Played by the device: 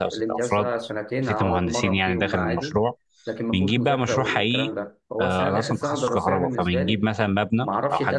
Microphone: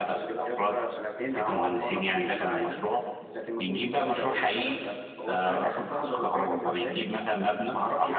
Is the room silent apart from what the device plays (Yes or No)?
Yes